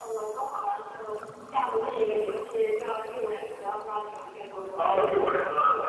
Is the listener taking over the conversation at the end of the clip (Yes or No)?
Yes